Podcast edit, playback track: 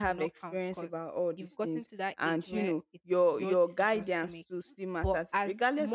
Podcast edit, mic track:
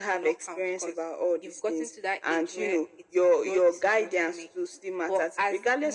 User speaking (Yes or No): No